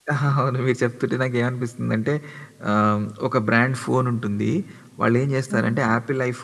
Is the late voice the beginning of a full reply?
No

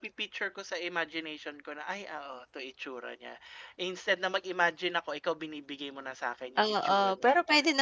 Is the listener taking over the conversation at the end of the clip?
Yes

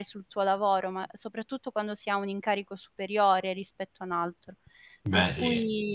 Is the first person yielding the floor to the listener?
No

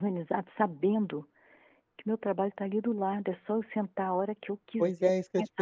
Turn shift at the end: Yes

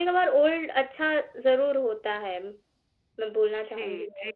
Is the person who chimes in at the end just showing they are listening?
No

